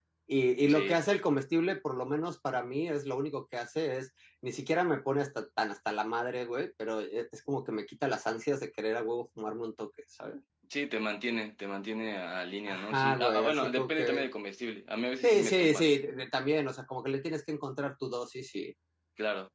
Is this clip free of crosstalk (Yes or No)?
No